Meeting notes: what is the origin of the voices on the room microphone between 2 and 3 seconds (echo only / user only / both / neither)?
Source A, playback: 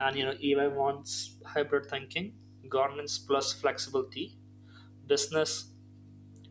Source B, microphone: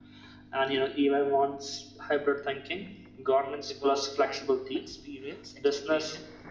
echo only